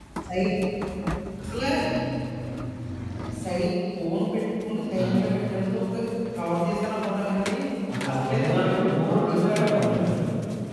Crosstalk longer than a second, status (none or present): present